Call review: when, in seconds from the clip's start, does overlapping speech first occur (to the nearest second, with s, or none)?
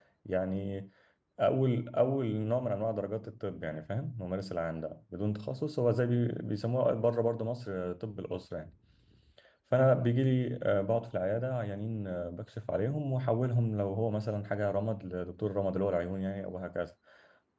none